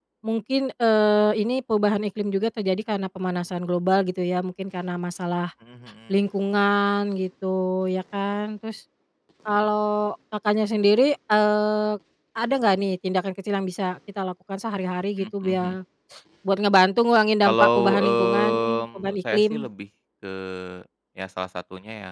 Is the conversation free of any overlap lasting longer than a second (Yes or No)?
No